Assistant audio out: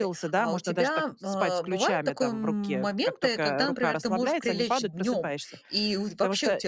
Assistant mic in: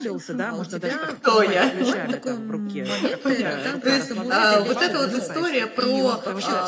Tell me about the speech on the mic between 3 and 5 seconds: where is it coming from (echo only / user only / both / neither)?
both